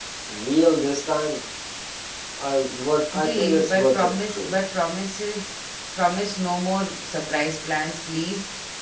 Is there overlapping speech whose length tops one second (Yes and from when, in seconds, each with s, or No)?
Yes, from 3.2 s